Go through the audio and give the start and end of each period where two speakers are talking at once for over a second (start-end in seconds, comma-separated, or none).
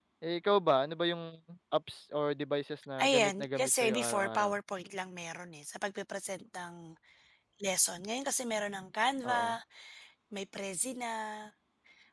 3.0-4.5